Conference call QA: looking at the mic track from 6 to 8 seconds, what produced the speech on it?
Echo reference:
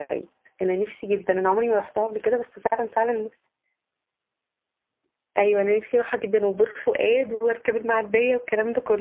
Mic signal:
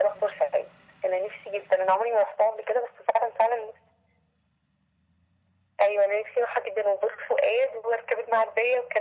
echo only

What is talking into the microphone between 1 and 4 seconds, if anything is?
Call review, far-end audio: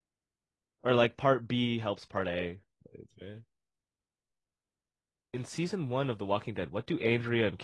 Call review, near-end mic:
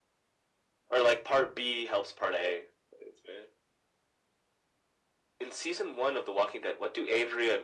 echo only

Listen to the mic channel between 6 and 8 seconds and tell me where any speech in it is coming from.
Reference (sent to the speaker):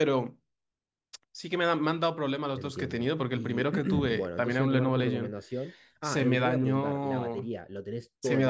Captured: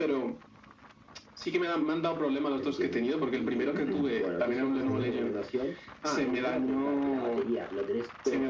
echo only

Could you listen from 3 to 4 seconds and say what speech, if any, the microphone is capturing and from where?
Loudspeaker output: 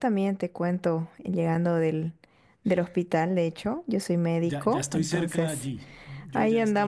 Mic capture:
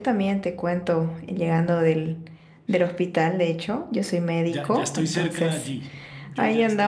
echo only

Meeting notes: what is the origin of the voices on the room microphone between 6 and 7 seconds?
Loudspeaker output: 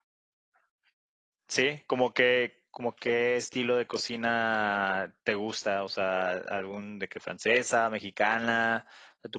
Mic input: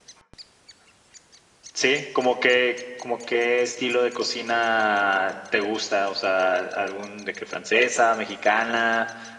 echo only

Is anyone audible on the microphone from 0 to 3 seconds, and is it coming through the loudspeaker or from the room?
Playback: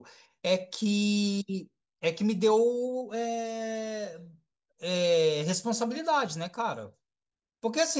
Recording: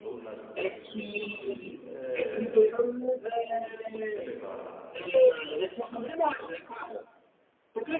both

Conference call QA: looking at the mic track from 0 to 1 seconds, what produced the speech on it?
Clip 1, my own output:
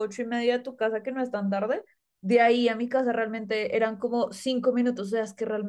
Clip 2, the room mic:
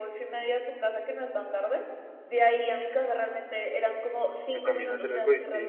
echo only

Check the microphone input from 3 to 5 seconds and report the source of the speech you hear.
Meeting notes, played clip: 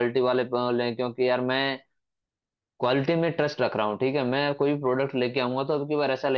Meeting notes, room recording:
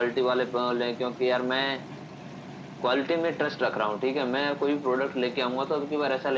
echo only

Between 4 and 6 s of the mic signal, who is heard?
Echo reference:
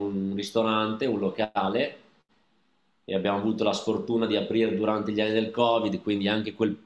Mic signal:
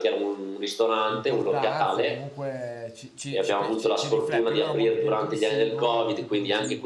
both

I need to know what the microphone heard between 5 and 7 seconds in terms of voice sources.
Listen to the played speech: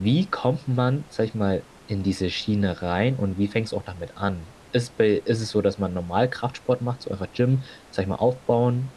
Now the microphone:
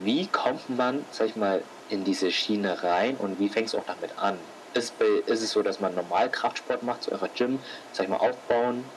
echo only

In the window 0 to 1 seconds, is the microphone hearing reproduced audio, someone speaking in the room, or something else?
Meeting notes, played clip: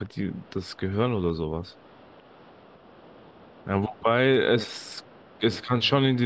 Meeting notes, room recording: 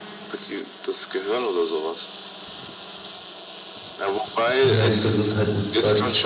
echo only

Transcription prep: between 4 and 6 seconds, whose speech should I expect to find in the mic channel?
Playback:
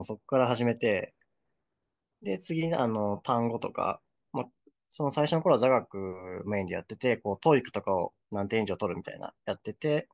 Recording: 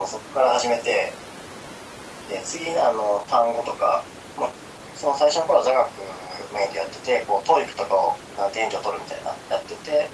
echo only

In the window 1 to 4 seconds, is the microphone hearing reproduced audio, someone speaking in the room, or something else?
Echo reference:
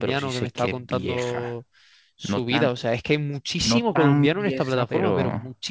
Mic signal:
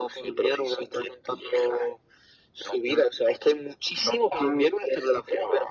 echo only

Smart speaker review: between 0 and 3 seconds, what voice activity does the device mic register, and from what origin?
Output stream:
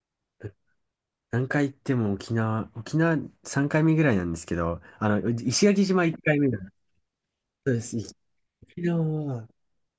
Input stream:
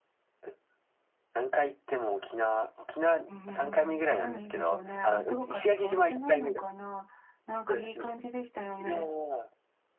echo only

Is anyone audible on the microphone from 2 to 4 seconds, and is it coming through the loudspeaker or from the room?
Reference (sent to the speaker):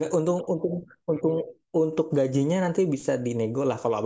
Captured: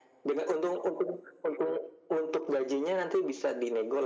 echo only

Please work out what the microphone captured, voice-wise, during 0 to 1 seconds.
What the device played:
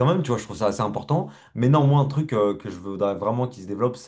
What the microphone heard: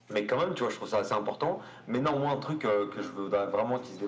echo only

